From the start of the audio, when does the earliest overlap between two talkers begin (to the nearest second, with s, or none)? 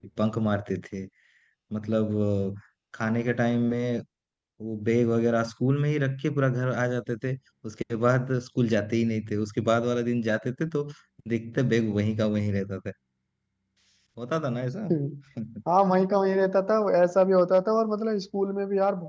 none